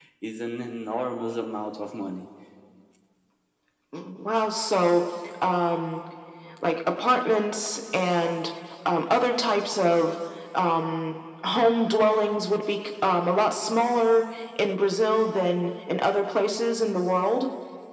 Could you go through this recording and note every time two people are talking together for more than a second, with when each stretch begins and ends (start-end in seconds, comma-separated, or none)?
none